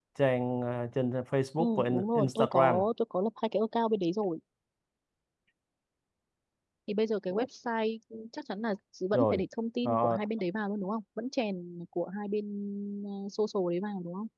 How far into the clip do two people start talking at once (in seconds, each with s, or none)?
1.6 s